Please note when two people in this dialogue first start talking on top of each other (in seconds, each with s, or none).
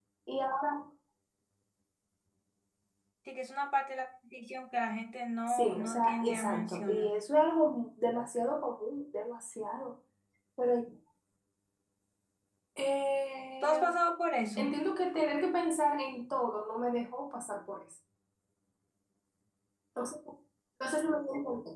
5.5 s